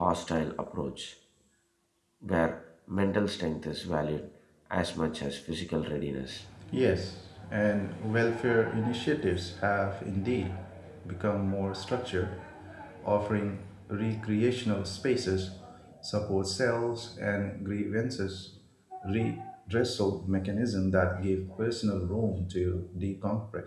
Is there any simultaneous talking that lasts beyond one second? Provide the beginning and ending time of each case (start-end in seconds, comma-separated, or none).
none